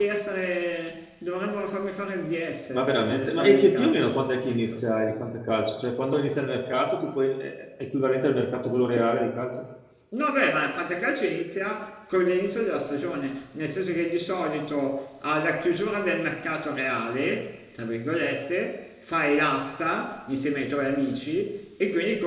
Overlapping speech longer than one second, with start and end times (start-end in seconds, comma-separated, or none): 2.7-4.7